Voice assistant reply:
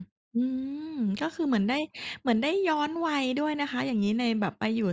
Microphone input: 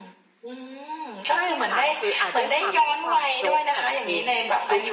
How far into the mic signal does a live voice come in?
1.3 s

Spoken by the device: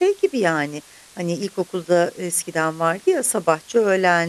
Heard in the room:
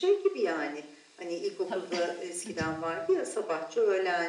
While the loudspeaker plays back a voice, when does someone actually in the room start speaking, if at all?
1.6 s

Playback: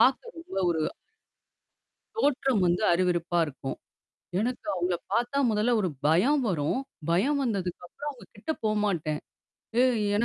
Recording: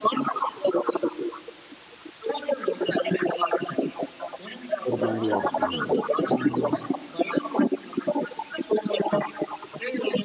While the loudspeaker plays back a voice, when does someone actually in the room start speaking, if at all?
4.9 s

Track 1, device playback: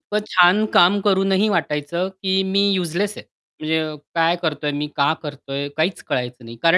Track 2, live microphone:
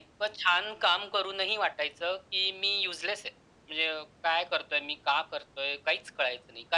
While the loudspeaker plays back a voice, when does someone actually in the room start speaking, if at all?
none

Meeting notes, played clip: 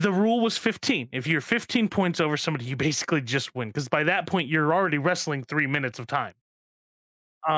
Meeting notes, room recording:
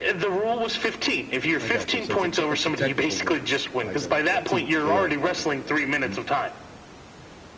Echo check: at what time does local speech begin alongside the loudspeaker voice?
1.6 s

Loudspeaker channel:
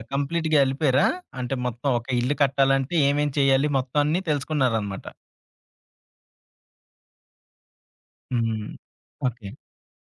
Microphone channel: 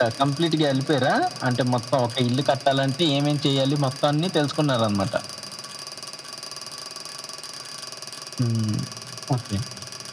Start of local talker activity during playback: none

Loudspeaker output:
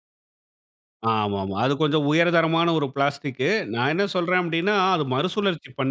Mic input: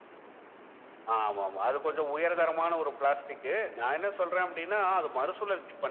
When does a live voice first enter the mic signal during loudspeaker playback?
none

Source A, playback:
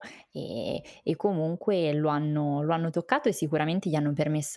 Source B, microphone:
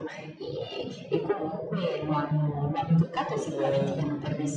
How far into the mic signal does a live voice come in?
3.5 s

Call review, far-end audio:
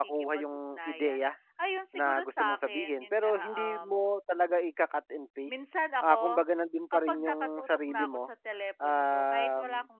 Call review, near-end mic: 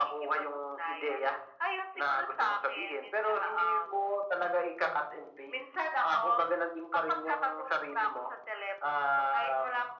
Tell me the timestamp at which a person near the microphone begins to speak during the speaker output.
none

